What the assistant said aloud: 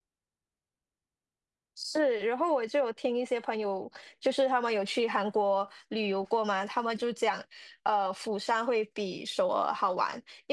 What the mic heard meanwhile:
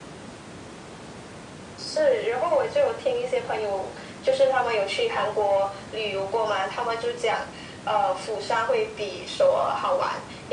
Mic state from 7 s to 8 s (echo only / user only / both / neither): echo only